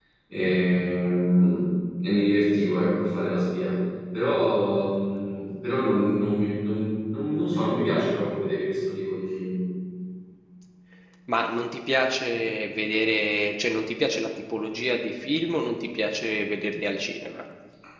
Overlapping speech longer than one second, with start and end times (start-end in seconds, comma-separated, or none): none